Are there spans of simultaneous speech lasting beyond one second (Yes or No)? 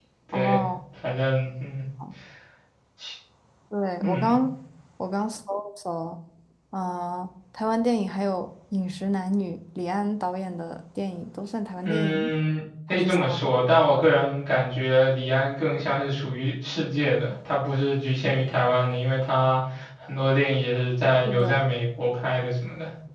No